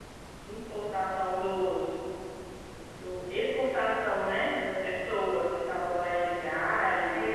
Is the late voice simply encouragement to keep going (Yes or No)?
No